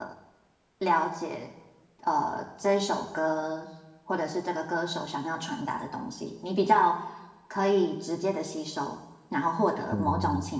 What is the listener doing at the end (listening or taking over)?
listening